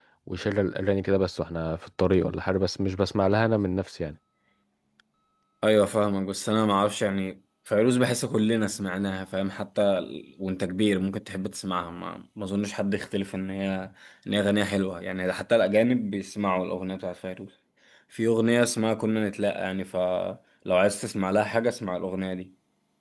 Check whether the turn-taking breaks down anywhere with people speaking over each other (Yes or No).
No